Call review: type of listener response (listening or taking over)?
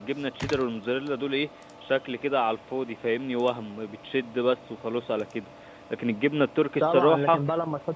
taking over